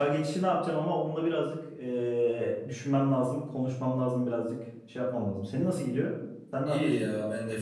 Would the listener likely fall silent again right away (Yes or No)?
No